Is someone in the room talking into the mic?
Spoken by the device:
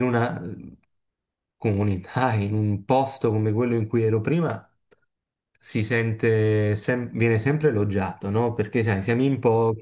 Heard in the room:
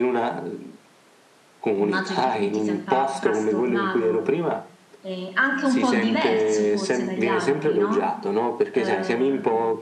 Yes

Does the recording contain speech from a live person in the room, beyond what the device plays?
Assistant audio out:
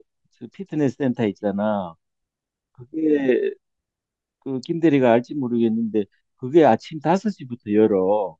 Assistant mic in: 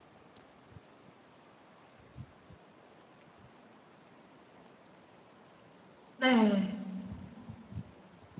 Yes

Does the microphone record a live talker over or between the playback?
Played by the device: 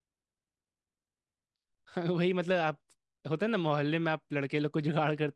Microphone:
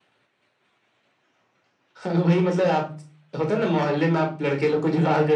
No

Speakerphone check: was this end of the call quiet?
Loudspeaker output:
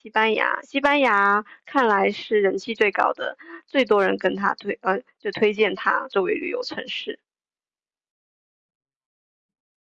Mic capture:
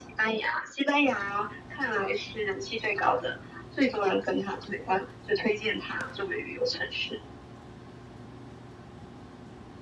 Yes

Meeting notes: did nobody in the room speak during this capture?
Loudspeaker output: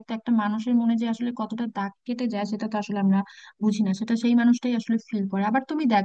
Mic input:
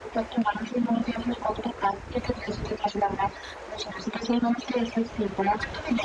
Yes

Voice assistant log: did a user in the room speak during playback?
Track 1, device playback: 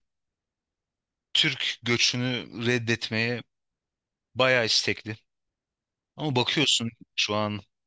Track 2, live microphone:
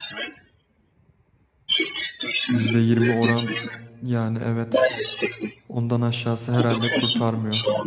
Yes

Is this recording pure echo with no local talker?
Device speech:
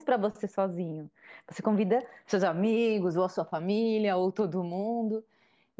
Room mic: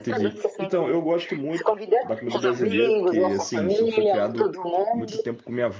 No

